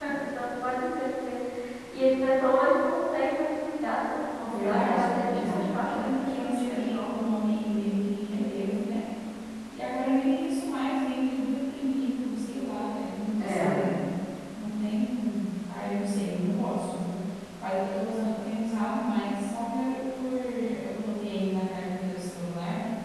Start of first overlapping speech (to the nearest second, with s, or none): 4 s